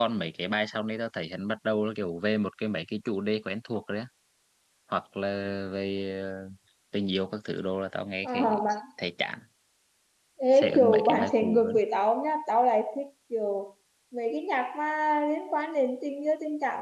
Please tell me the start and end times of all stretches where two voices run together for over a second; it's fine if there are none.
10.5-11.7

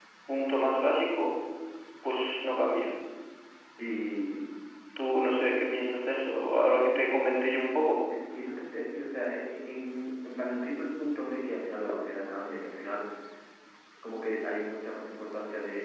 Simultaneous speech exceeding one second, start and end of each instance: none

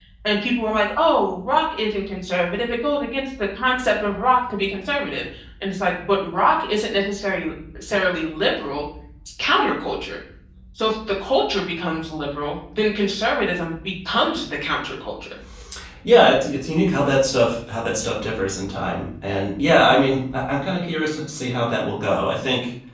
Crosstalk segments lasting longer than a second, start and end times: none

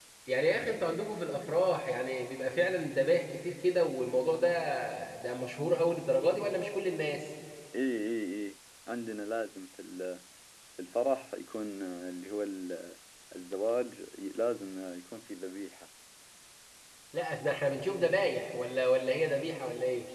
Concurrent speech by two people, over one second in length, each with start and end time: none

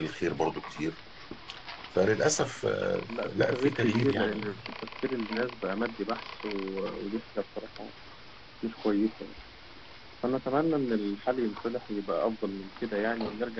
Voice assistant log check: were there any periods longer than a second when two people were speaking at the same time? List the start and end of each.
3.1-4.4

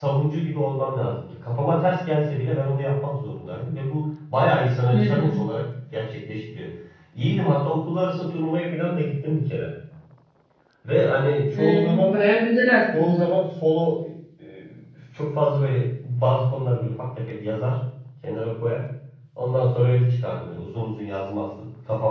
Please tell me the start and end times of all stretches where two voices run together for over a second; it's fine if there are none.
none

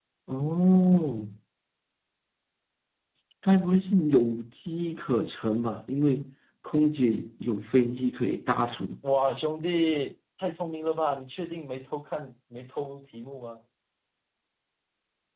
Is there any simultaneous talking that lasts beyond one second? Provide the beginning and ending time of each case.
none

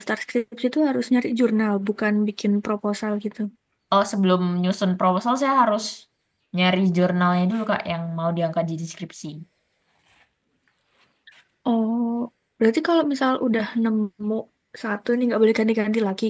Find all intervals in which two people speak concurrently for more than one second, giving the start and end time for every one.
none

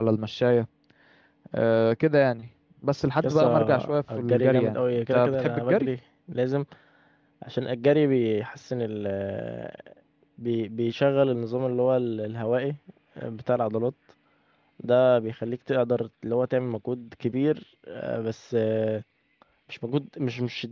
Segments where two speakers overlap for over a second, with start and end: 3.2-5.9

